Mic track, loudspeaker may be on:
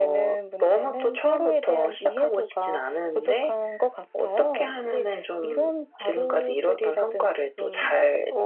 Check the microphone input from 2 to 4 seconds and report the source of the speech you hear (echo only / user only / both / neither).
echo only